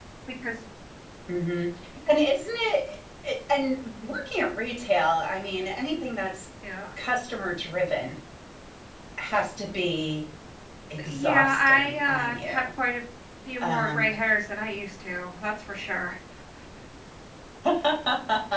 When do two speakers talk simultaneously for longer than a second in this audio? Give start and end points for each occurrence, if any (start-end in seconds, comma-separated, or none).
11.0-12.6